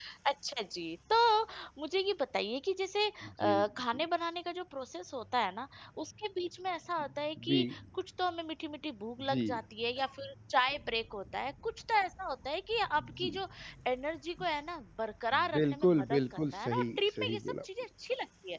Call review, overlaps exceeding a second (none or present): present